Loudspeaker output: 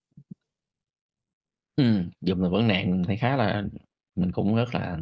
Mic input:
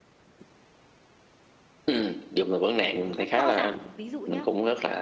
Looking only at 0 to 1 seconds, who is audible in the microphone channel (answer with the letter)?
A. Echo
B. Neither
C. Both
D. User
B